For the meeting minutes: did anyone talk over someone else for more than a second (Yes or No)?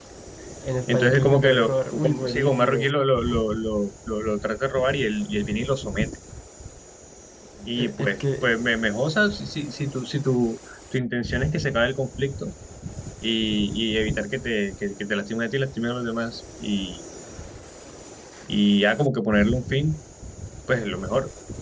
Yes